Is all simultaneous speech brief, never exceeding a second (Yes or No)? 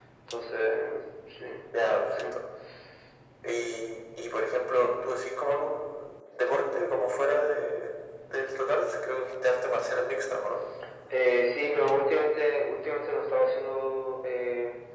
Yes